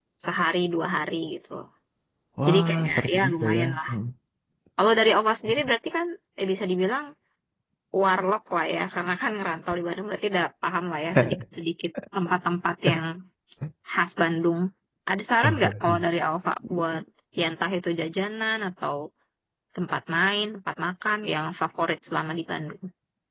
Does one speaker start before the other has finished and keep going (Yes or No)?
Yes